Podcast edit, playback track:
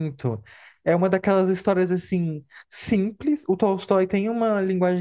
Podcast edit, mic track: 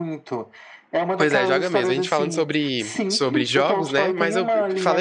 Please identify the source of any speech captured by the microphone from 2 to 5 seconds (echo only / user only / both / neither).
both